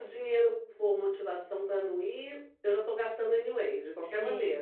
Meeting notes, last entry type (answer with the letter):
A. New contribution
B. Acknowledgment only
A